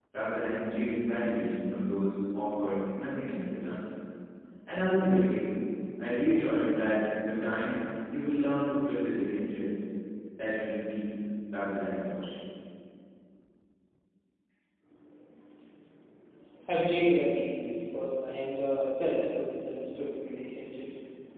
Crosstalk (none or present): none